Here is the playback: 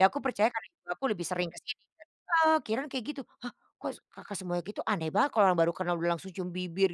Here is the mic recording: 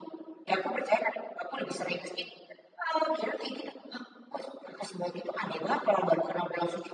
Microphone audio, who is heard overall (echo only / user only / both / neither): echo only